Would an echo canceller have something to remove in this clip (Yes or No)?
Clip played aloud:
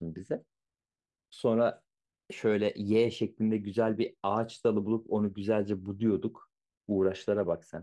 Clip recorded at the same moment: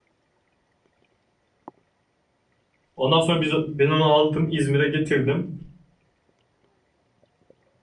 No